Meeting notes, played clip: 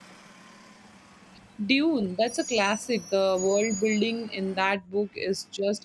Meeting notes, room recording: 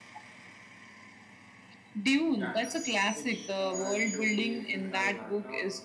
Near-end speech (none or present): present